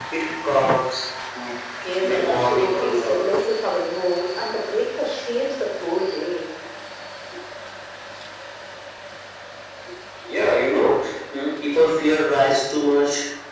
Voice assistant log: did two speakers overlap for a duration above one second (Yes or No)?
Yes